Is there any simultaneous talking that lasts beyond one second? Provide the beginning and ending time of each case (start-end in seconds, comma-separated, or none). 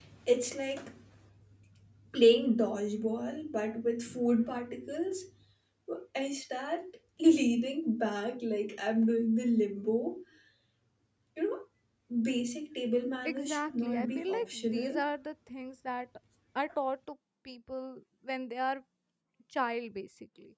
13.2-15.0